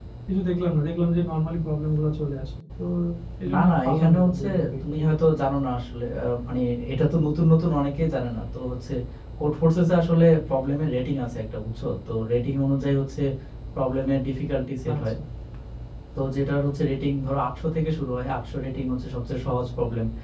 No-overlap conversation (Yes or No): No